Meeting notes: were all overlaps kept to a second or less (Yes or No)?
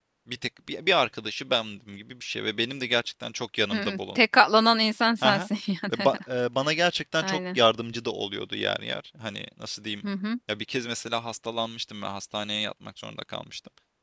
Yes